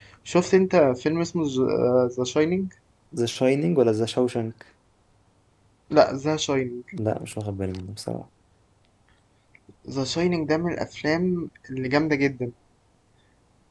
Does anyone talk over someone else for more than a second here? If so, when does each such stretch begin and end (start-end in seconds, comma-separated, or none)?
none